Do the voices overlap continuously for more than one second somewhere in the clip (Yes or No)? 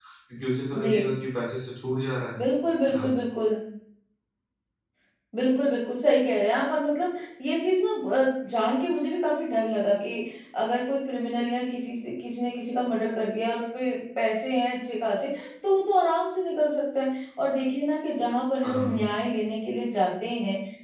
No